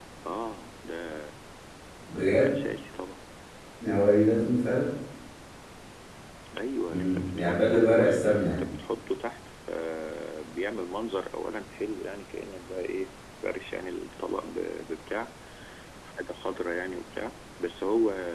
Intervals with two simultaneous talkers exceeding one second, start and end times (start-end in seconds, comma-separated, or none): 6.9-8.6